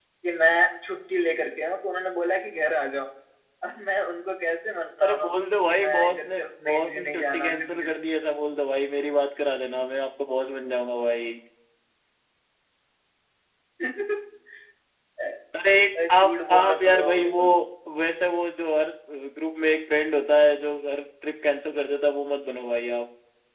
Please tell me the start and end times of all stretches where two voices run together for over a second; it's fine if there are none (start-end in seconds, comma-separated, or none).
5.7-8.0, 16.1-17.4